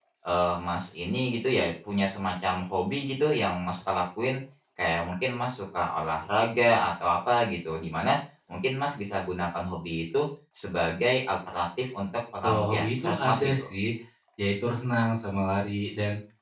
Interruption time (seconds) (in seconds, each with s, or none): 12.4 s